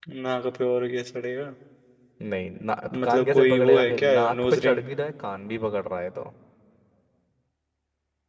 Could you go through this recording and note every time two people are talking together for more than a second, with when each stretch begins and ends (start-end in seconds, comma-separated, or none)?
2.9-4.8